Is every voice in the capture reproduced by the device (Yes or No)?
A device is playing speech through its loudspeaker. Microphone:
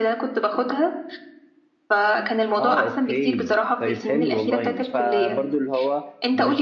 No